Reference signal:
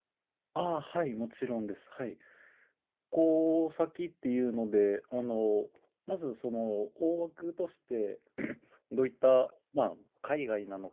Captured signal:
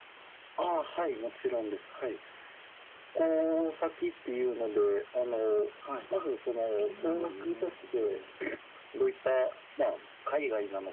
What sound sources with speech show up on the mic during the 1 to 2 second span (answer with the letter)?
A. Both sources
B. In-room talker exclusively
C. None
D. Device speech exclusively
D